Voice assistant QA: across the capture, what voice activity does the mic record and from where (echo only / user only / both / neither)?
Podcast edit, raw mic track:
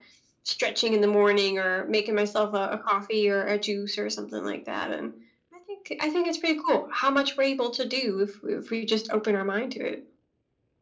echo only